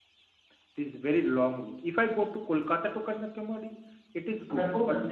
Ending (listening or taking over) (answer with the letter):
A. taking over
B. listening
A